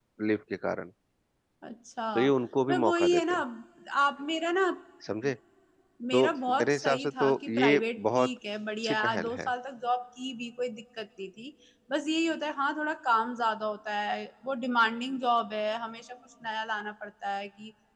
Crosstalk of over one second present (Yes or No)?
Yes